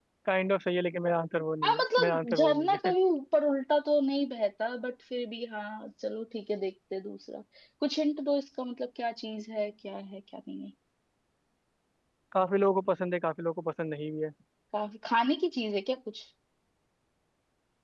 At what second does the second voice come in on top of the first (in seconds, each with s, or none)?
1.6 s